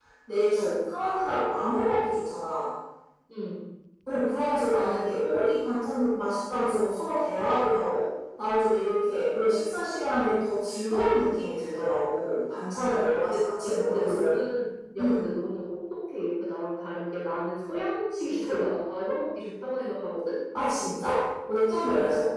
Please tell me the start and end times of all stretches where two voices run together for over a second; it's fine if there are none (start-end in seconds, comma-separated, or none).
13.0-14.4